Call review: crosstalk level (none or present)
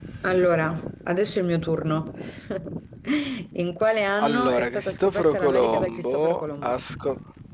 present